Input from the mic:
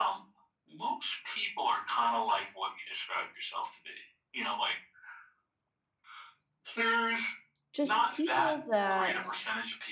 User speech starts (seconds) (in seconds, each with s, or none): 7.7 s